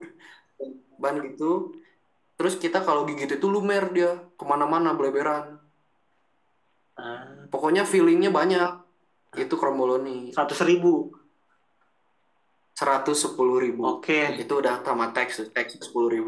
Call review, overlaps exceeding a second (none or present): none